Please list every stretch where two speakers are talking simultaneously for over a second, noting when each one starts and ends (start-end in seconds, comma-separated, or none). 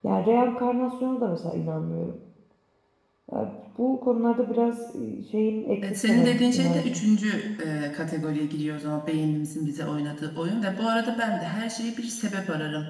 5.8-7.0